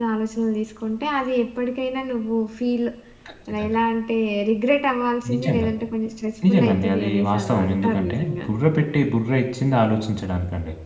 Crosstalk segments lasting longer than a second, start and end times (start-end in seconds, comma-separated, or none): 6.5-8.6